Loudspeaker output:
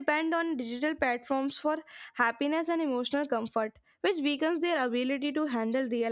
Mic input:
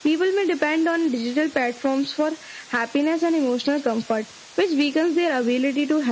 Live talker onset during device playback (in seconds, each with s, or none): none